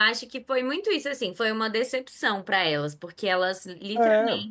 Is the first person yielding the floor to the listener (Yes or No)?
No